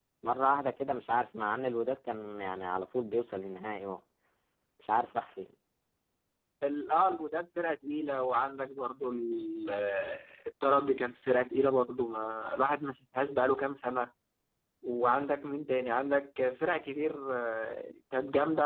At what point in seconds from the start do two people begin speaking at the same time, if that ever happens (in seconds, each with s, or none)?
none